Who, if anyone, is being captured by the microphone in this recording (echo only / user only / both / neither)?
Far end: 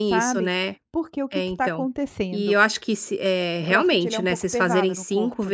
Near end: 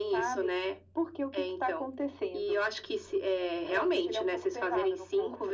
echo only